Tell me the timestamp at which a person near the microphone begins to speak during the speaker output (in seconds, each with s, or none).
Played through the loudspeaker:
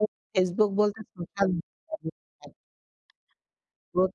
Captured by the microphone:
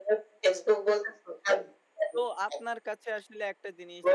2.1 s